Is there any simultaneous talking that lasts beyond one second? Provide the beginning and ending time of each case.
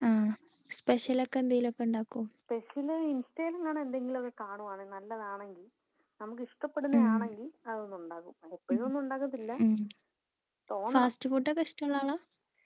none

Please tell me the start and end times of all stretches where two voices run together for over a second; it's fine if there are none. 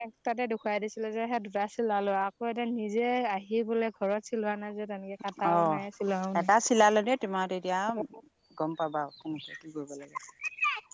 none

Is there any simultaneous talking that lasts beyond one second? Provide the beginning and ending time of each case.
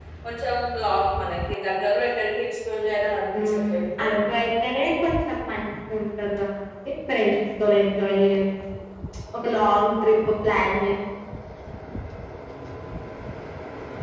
none

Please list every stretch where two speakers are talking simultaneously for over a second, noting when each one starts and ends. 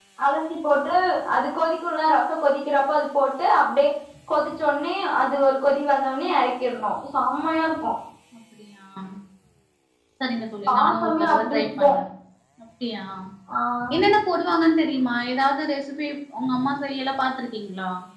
10.7-11.9

